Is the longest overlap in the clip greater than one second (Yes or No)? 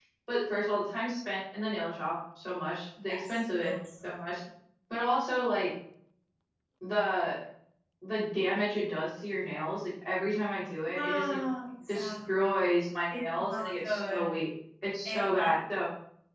Yes